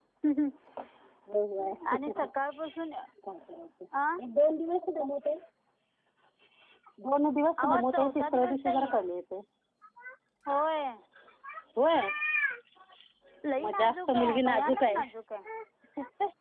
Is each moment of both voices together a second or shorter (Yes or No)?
No